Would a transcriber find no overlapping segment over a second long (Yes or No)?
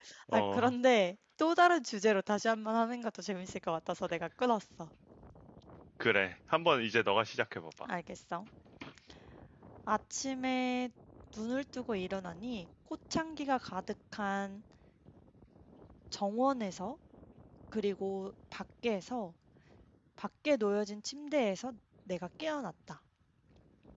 Yes